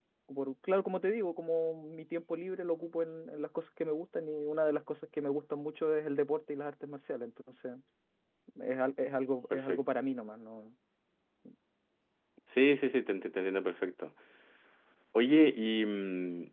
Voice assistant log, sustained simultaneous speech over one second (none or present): none